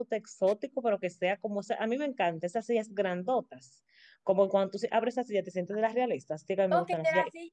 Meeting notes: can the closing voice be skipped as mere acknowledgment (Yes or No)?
No